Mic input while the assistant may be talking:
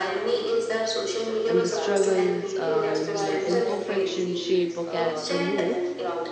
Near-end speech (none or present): present